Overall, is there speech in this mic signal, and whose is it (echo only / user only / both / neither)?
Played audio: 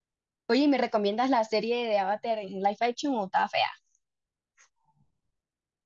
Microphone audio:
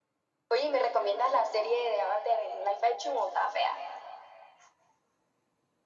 echo only